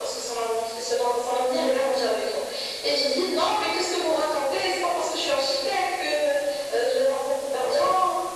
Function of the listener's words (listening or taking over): listening